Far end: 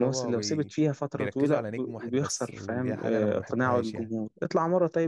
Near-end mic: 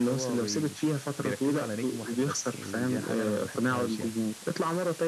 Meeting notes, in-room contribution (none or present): none